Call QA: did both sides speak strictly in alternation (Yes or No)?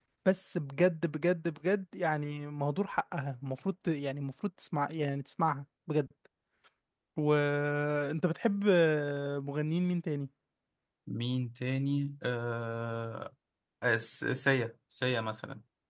Yes